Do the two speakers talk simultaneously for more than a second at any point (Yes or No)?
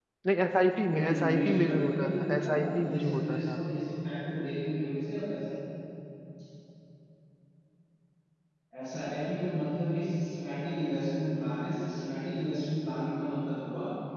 Yes